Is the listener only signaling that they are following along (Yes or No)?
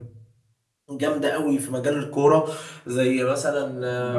No